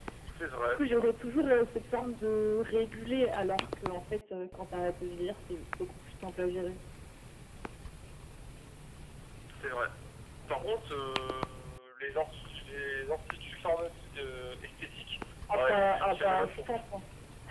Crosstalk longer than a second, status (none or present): present